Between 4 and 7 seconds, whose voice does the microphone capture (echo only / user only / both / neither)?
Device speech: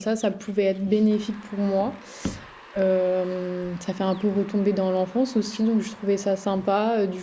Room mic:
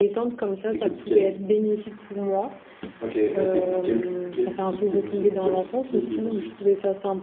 both